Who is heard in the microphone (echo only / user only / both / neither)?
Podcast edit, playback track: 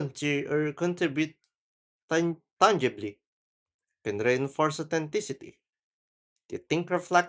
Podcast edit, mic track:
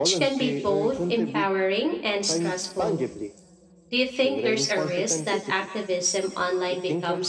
both